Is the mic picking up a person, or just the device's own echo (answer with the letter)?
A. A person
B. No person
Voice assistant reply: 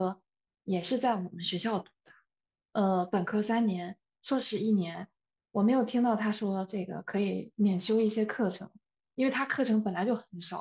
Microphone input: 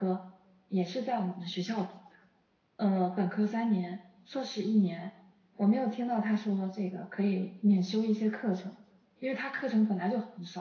B